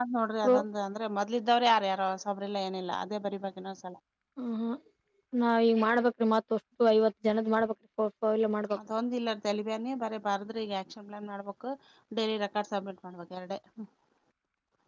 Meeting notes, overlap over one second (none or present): none